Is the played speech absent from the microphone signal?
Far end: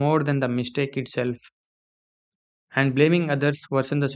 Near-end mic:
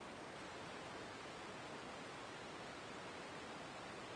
Yes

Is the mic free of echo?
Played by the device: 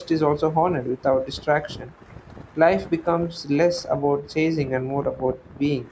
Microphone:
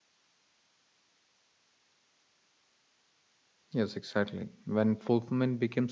Yes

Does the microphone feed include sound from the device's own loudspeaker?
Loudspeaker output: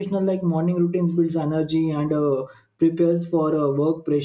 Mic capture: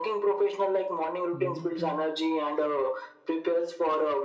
Yes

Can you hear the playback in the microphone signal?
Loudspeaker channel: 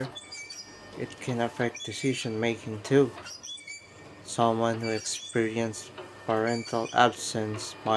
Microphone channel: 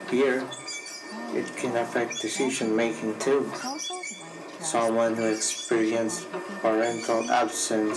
Yes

